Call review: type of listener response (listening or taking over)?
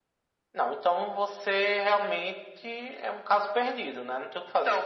taking over